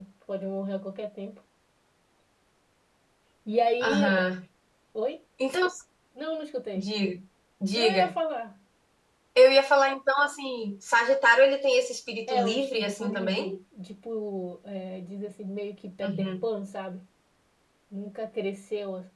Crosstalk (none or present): present